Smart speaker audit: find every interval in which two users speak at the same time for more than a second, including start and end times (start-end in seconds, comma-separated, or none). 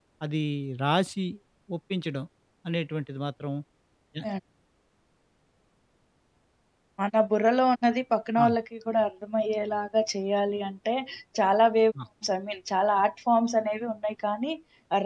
none